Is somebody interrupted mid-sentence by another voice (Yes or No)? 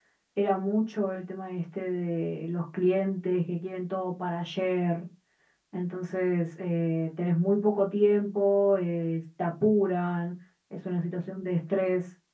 No